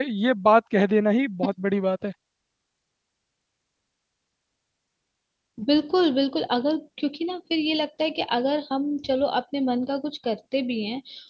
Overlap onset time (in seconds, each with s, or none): none